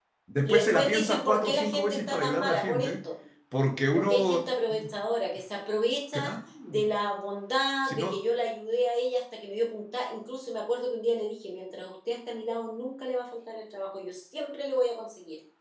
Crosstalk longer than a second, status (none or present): present